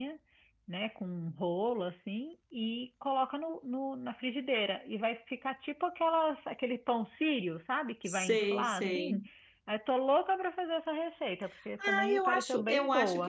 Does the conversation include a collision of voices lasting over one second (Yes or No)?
Yes